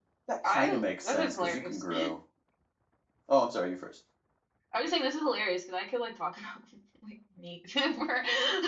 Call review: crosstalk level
present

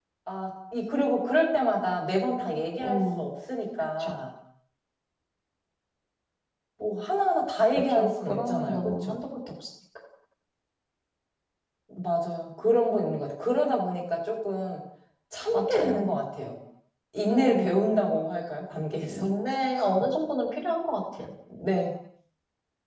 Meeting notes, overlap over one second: present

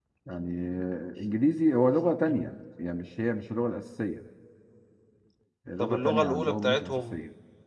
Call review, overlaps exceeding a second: present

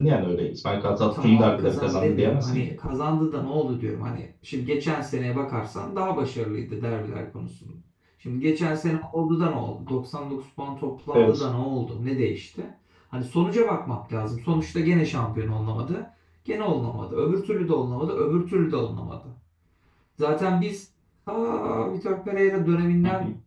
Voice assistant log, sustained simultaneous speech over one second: present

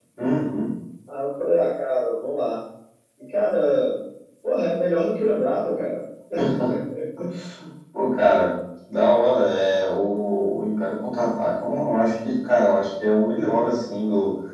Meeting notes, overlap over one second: none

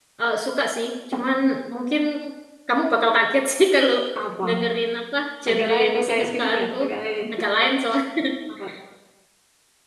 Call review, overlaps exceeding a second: present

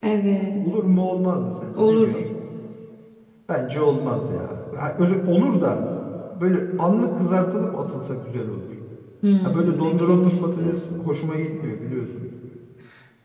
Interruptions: present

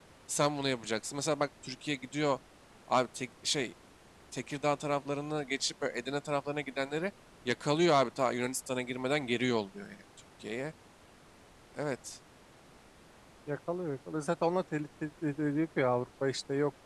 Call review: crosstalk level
none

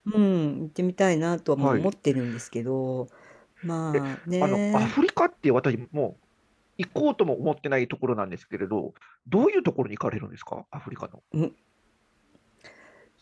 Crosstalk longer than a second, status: none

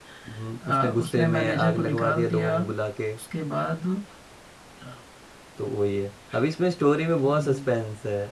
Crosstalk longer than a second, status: present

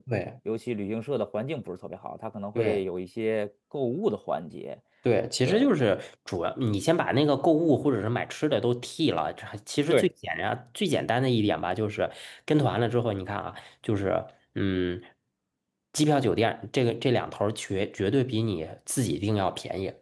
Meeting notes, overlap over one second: none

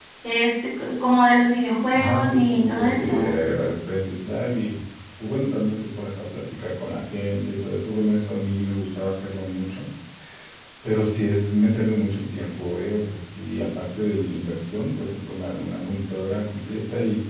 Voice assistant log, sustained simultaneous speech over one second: present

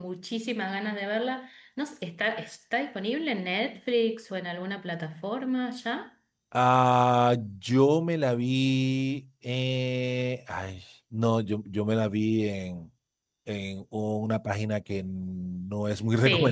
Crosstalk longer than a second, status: none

